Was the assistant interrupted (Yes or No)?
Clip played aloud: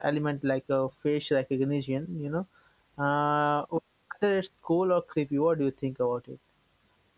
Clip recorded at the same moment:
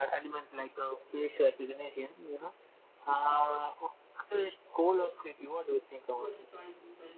Yes